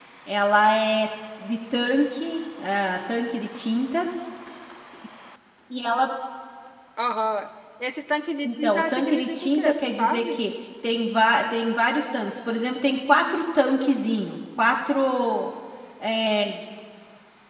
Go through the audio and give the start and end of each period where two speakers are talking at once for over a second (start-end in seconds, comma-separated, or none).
8.4-10.3